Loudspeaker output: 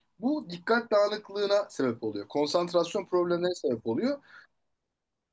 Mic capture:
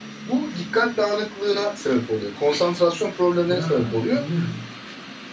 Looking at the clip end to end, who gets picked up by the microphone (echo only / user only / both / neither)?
both